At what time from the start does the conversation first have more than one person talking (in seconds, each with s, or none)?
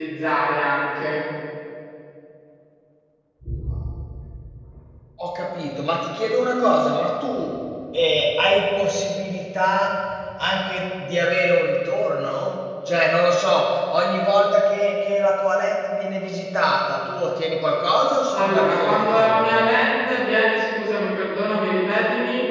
18.3 s